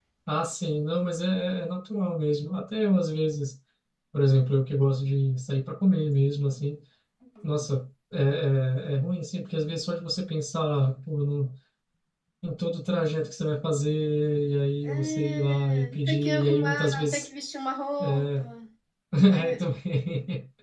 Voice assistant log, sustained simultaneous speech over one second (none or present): present